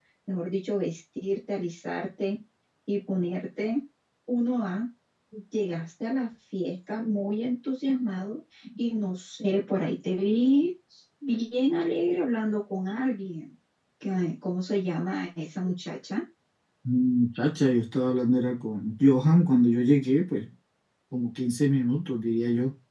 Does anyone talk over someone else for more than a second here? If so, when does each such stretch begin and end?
none

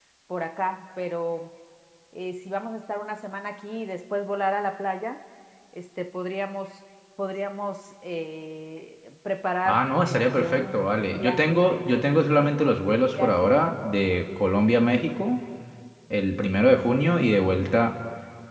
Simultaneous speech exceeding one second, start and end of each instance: 9.7-11.6

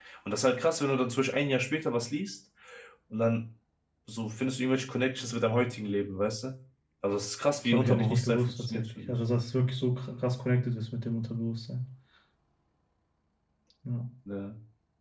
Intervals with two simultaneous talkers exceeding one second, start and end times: 7.6-9.2

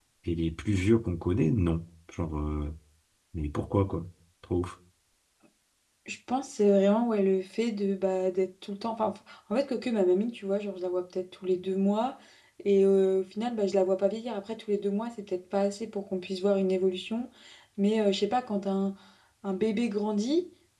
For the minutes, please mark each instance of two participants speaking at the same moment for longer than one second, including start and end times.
none

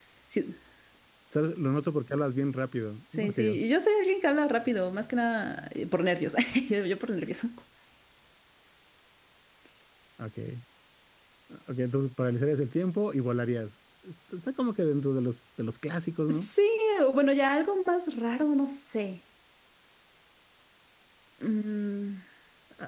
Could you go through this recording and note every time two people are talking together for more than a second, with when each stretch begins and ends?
none

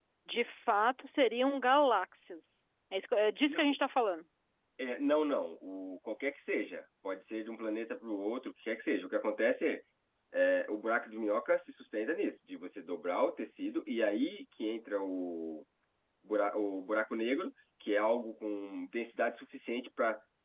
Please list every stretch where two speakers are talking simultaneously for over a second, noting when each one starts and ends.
none

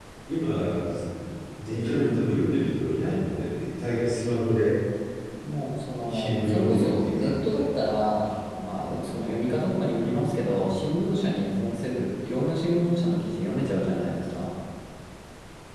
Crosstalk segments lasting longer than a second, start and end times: 6.0-7.6

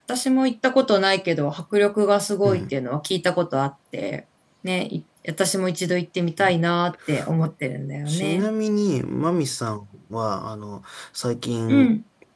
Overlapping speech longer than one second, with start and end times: none

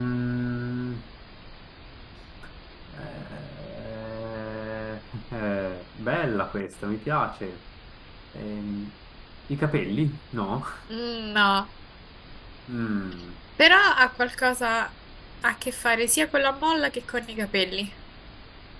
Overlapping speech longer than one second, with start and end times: none

